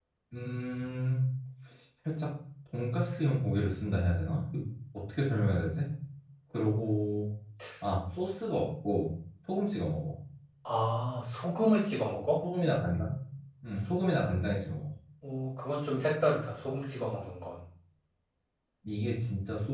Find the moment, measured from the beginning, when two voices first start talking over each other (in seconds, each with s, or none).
none